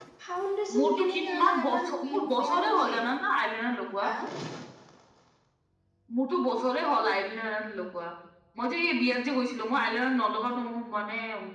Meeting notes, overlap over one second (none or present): present